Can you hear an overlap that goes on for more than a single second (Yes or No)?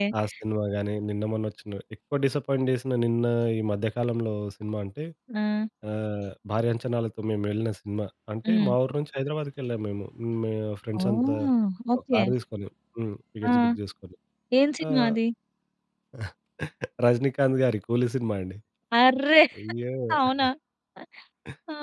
No